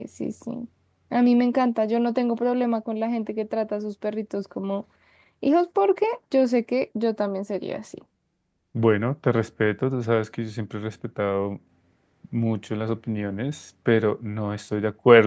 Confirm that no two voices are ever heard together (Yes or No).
Yes